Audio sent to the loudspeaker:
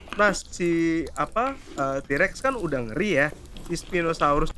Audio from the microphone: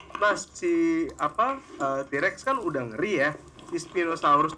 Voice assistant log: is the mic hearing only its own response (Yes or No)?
Yes